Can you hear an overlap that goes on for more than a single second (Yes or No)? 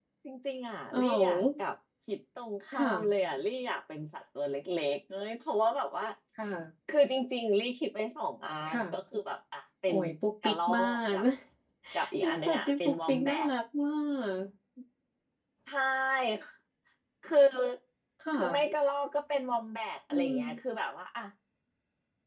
Yes